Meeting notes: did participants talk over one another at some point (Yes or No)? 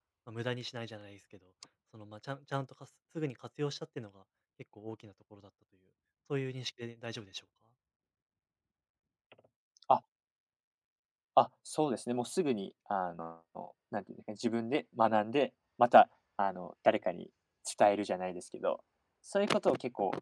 No